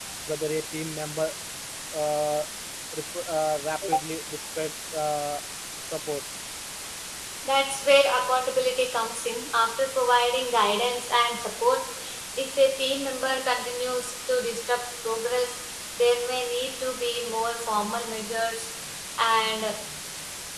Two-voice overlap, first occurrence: none

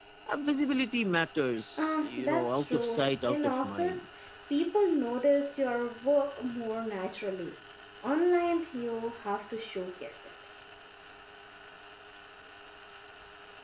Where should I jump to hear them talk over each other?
2 s

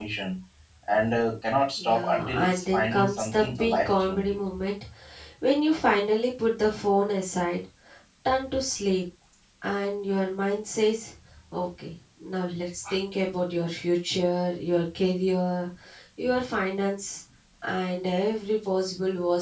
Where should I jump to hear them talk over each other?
2 s

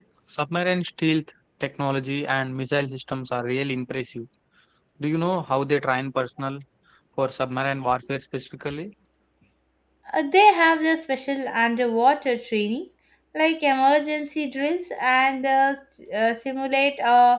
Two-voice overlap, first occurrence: none

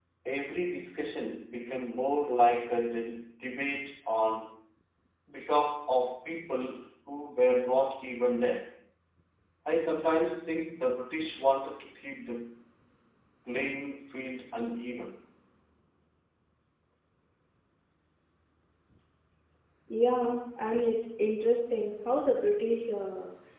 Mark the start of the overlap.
none

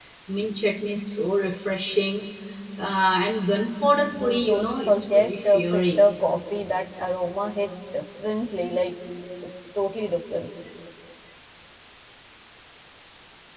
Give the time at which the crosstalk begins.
4 s

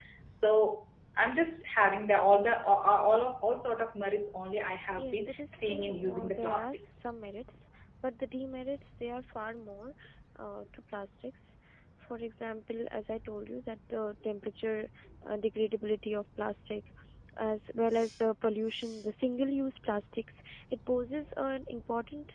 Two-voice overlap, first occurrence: 5 s

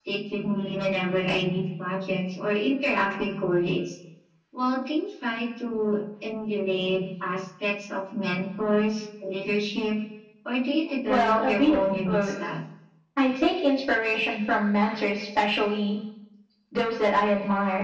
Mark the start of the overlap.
11 s

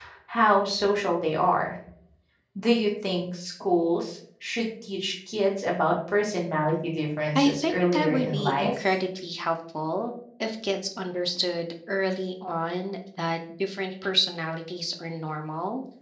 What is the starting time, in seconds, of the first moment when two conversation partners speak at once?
7 s

